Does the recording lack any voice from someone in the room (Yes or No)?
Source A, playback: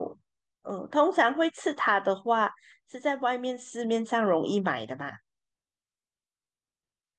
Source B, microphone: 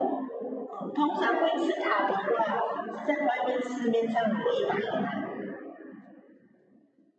Yes